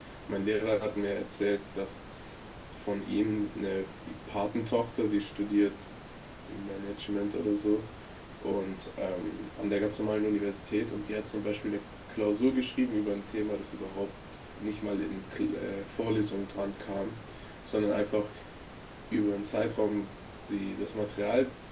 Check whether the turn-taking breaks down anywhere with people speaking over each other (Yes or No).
No